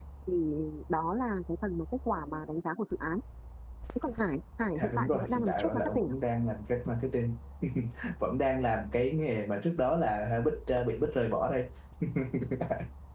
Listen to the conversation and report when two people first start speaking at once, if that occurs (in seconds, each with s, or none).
4.8 s